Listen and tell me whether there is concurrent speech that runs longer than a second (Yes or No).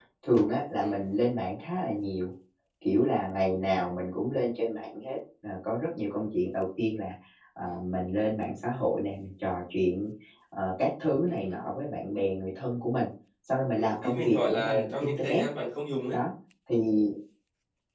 Yes